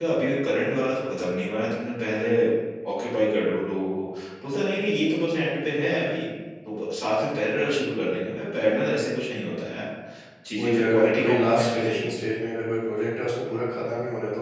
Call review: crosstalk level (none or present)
present